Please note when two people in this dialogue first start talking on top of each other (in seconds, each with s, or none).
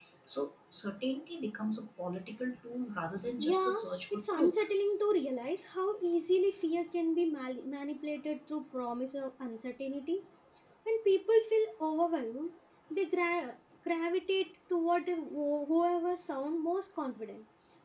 3.4 s